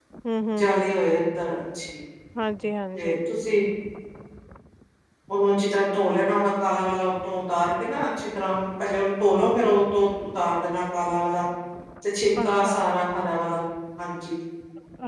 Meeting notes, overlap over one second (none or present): none